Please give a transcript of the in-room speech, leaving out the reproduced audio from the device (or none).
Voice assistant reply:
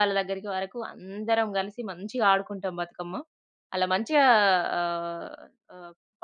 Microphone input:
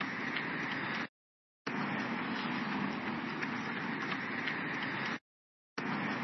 none